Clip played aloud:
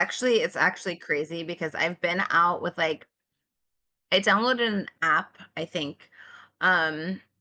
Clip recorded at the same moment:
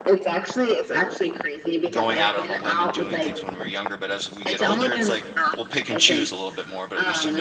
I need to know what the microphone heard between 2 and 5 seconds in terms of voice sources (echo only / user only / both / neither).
both